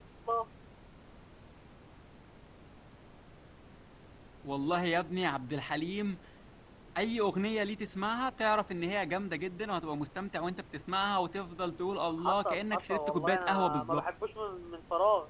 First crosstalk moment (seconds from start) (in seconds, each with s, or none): 12.2 s